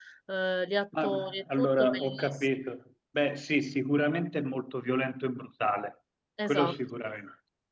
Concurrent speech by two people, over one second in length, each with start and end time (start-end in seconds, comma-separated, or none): 1.0-2.4